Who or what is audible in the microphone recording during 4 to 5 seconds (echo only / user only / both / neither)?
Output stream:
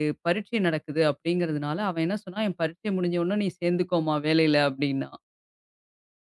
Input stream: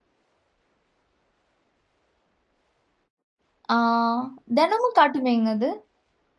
user only